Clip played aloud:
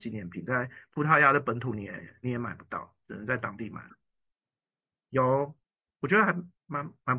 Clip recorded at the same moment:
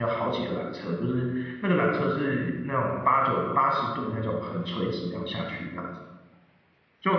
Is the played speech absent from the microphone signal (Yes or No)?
Yes